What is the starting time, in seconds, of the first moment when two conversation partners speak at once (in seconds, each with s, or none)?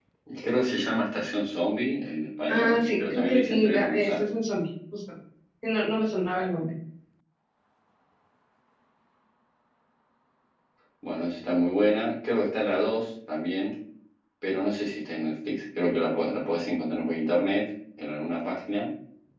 2.5 s